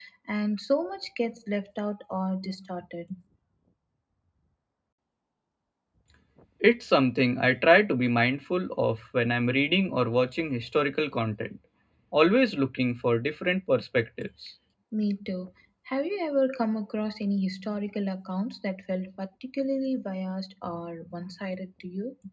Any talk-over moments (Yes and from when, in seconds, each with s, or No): No